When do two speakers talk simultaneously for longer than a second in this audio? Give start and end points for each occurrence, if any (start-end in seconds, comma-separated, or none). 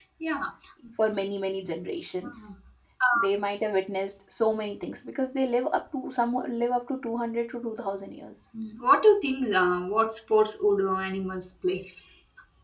none